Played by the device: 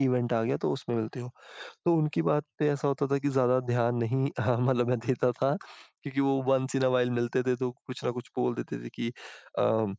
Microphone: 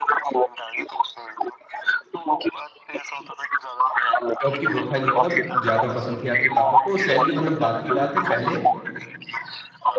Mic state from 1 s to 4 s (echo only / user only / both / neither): echo only